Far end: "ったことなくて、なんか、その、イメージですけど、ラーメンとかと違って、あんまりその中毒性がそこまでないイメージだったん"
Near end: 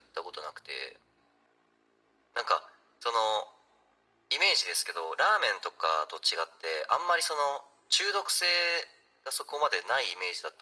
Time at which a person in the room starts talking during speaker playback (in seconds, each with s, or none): none